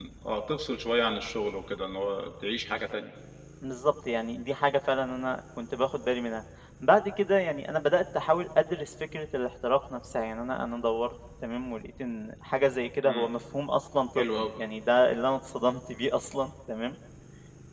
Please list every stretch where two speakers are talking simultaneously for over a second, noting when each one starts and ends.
none

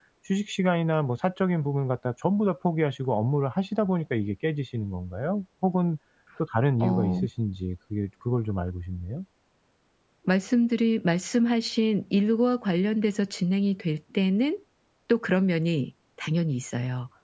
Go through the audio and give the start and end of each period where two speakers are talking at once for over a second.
none

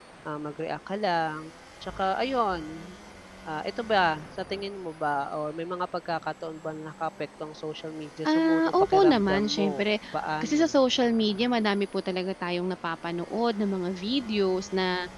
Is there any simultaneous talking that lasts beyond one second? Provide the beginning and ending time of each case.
8.3-9.7

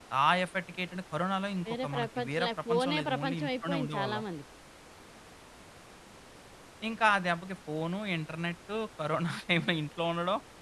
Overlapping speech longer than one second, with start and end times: 1.7-4.2

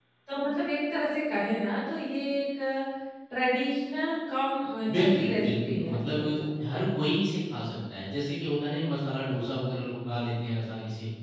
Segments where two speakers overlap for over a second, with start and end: 4.9-6.2

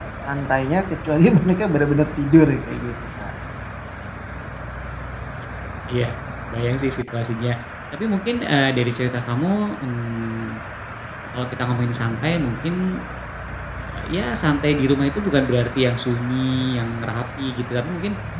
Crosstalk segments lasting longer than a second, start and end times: none

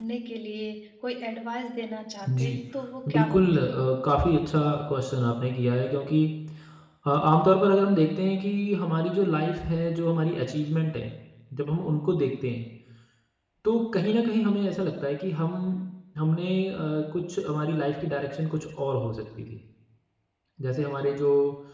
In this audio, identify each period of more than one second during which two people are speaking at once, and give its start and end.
none

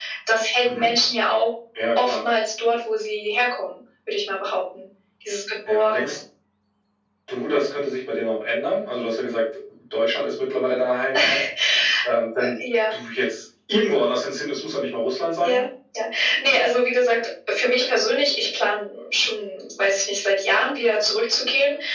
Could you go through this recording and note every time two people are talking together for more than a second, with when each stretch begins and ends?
none

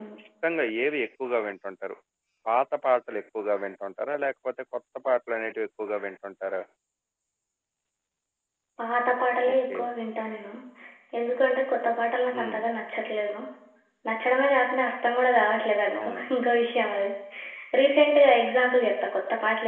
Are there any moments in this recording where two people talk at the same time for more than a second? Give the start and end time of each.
none

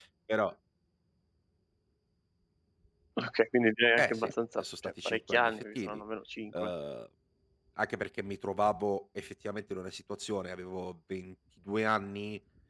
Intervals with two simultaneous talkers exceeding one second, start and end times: 4.0-6.0

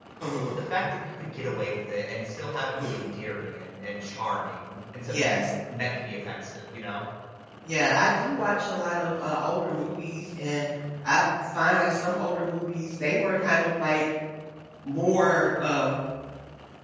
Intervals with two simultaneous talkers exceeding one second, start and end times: none

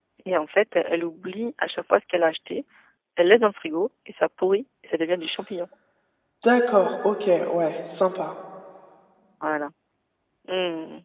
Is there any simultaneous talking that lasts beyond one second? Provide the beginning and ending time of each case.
none

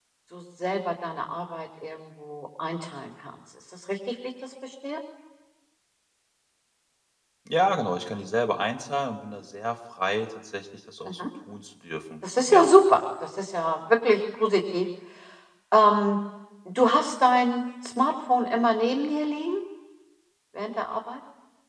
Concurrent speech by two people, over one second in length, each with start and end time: none

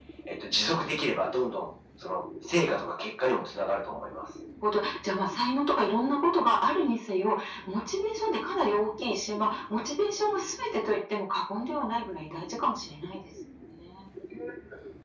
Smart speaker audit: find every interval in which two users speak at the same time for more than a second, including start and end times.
none

